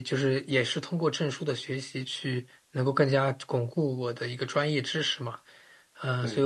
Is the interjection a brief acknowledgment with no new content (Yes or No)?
Yes